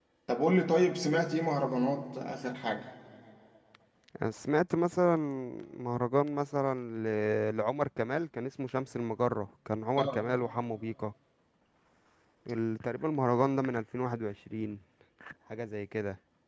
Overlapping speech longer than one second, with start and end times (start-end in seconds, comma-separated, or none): none